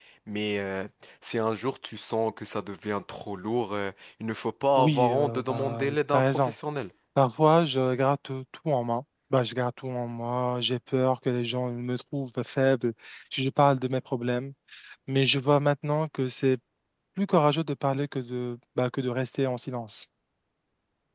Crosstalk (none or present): present